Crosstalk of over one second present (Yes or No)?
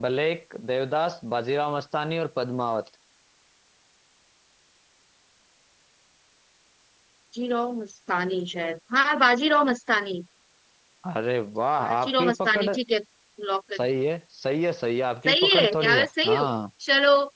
Yes